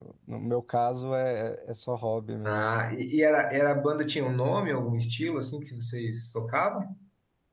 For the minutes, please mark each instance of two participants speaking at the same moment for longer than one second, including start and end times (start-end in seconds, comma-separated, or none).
none